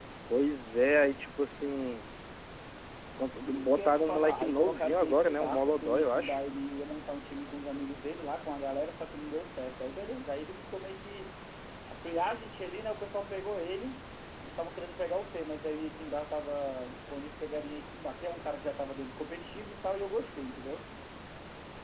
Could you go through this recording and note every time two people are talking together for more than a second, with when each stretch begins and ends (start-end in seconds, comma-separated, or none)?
3.4-6.4